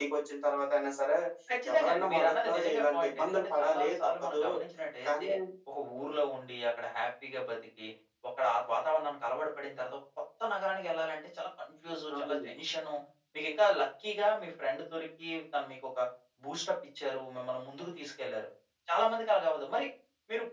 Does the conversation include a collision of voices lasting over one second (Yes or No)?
Yes